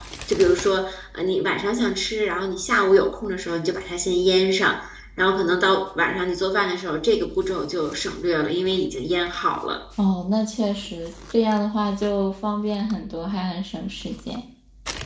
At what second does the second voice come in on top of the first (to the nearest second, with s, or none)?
none